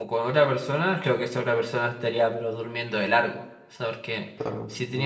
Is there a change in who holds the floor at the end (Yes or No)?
No